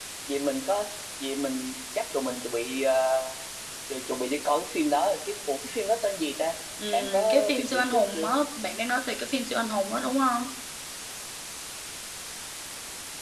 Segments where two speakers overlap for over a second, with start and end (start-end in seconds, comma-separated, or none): 6.9-8.3